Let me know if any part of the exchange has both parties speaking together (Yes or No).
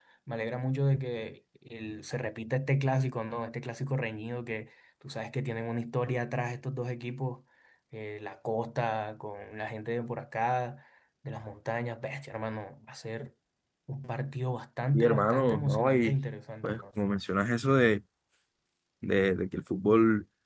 Yes